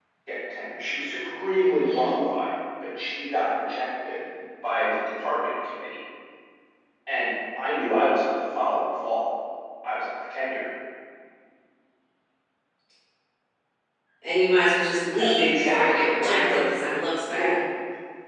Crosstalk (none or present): present